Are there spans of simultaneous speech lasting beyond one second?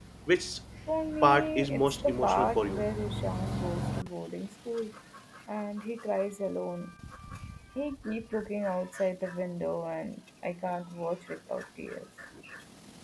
Yes, from 1.2 s

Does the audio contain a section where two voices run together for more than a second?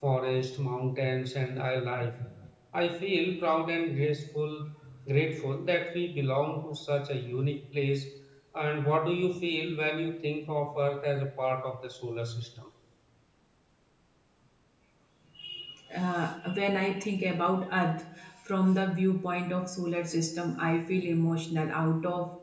No

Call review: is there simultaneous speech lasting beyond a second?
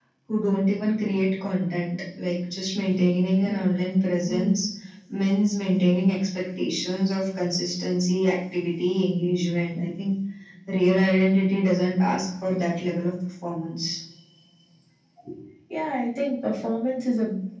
No

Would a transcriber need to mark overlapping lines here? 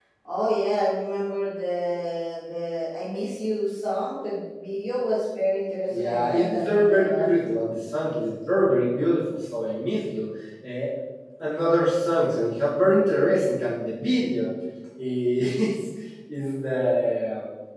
Yes, from 5.9 s

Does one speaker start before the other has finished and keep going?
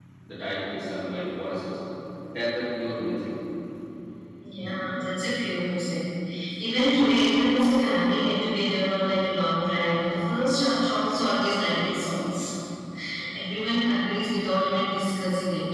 No

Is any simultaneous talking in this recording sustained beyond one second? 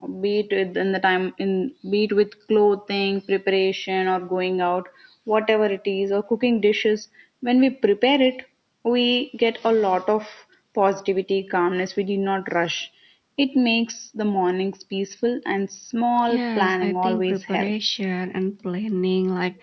Yes, from 16.3 s

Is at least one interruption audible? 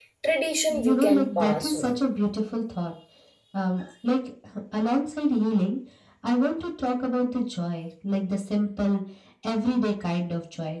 Yes, from 0.7 s

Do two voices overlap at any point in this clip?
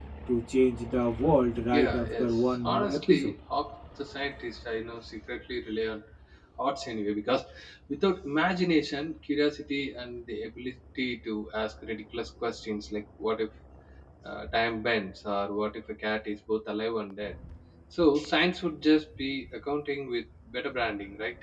Yes, from 1.6 s

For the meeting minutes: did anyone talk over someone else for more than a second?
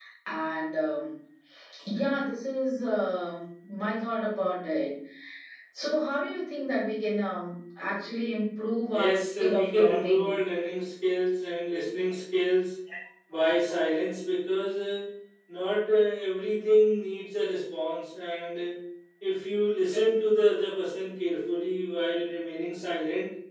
Yes, from 8.9 s

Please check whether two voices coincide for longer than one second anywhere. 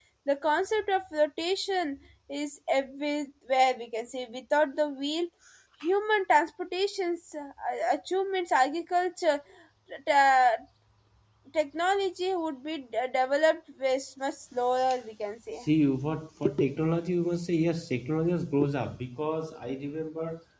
No

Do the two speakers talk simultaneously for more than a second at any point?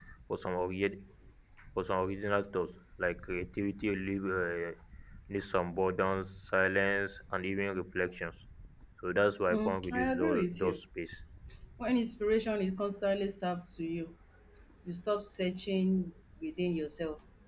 Yes, from 9.5 s

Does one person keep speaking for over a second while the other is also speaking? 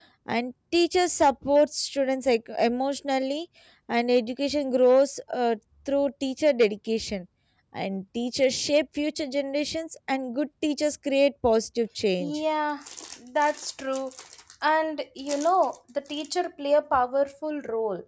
No

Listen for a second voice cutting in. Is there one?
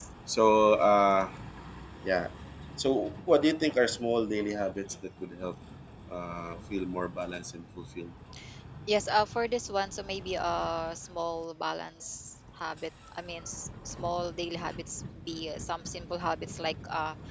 No

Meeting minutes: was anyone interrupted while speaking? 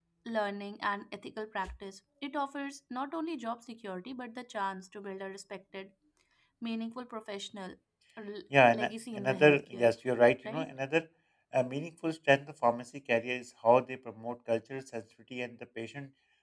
Yes, from 8.7 s

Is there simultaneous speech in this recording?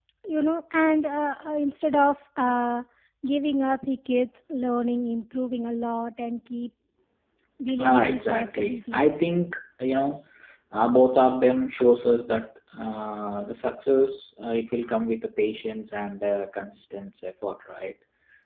Yes, from 7.8 s

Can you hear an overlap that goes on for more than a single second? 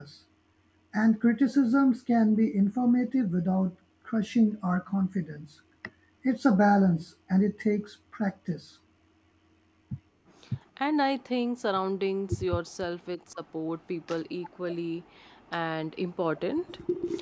No

